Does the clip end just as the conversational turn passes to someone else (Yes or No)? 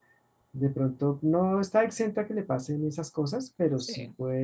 No